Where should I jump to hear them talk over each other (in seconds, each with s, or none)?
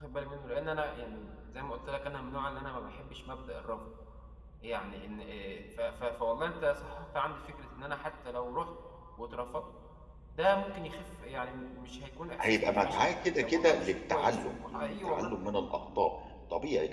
12.4 s